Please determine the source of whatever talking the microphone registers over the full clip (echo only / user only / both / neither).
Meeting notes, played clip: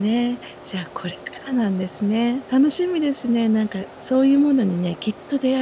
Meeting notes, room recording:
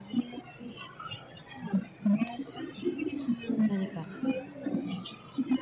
both